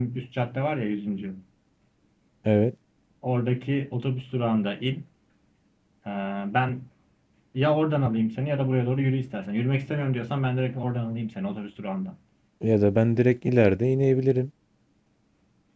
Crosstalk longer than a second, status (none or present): none